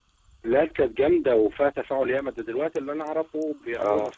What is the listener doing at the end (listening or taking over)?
listening